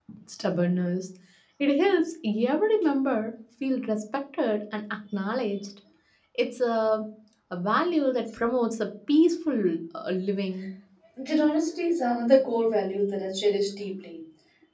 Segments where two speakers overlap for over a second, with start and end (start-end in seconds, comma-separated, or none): none